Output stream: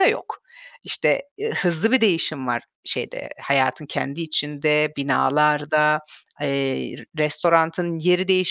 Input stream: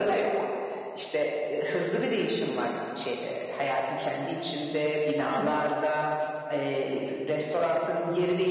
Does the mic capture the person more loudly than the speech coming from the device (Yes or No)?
No